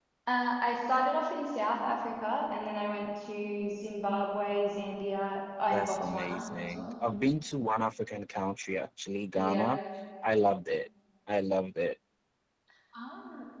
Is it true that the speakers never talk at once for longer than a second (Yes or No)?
No